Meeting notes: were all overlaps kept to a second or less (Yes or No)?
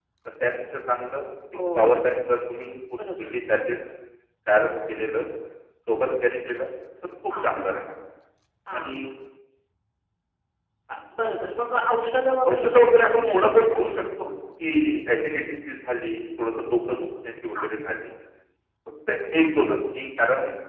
No